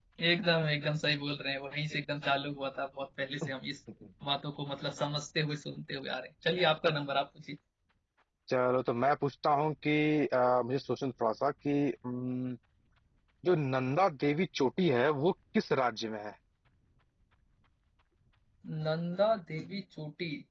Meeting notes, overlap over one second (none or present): none